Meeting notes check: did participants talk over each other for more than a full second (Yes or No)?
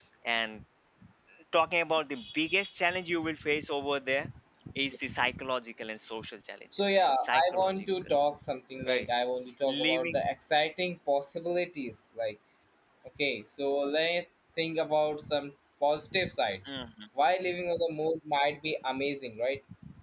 Yes